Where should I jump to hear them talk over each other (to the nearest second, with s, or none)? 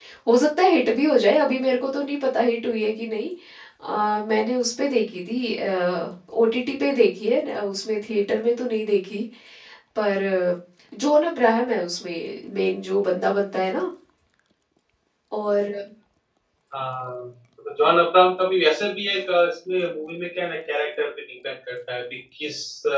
none